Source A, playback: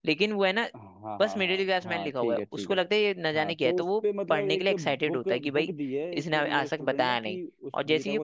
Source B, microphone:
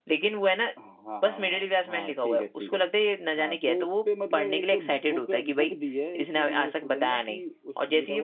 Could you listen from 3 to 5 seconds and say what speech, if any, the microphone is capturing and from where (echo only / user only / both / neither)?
echo only